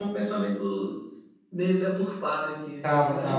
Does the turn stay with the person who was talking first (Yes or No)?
No